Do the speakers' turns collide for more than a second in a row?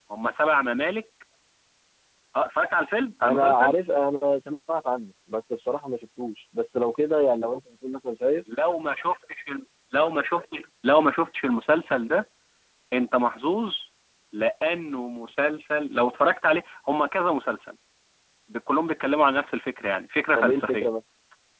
No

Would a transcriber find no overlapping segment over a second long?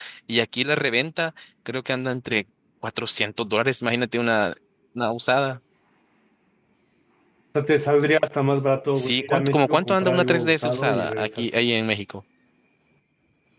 No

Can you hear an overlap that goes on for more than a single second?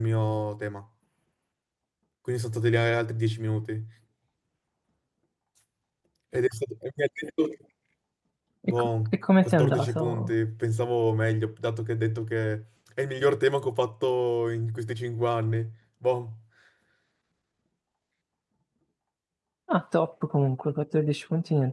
Yes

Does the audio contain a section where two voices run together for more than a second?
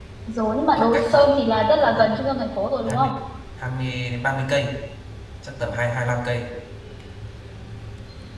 Yes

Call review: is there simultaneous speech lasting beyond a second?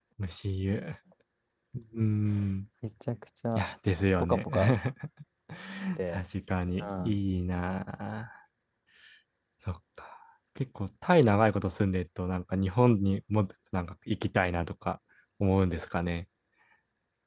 No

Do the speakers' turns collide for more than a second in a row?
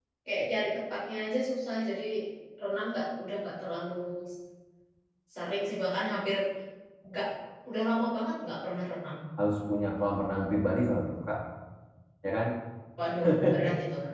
No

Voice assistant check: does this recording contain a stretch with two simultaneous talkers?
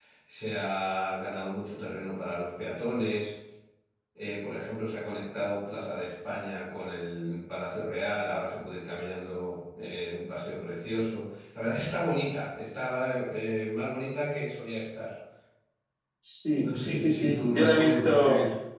Yes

